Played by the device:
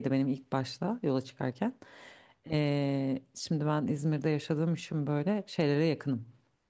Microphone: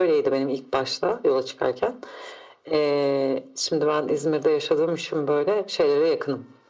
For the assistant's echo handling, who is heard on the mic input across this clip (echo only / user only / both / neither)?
echo only